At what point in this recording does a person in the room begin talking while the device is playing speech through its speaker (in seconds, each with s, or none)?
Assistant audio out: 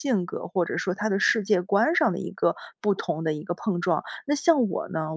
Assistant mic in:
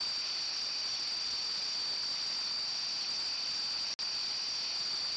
none